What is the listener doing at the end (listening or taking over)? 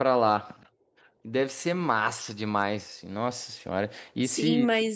taking over